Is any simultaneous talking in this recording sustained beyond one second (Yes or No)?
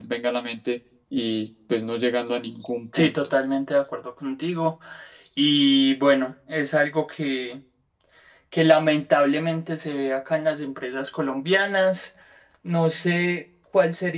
No